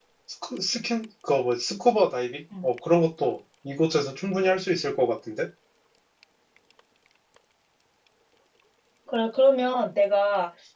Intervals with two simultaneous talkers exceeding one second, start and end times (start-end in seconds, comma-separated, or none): none